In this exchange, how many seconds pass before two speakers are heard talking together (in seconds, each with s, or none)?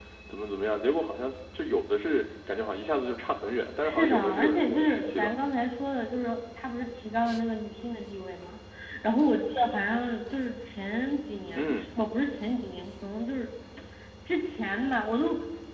3.8 s